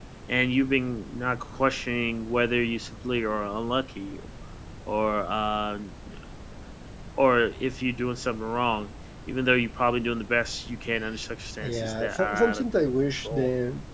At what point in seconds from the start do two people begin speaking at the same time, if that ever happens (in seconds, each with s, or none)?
11.6 s